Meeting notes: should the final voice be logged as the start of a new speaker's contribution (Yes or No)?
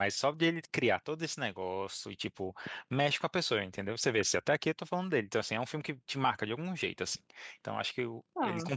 No